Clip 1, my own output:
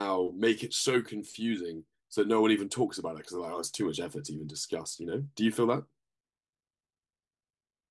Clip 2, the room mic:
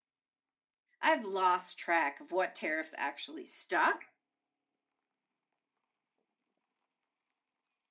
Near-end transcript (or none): I've lost track of what tariffs actually stop